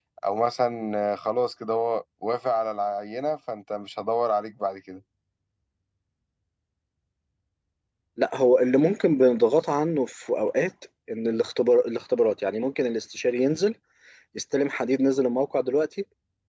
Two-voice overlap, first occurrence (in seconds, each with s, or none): none